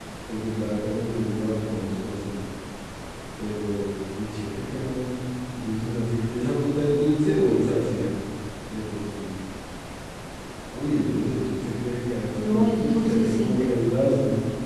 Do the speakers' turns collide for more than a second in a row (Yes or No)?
Yes